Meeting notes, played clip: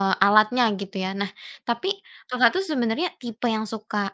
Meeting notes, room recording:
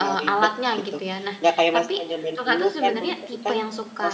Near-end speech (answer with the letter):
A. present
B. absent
A